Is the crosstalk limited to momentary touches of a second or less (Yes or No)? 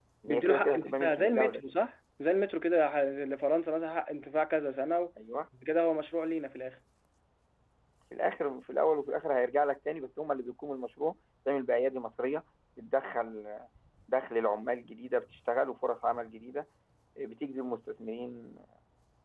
No